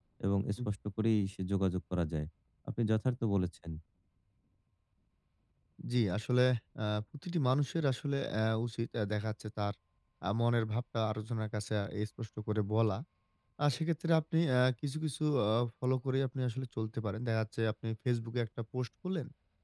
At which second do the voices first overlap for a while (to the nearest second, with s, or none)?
none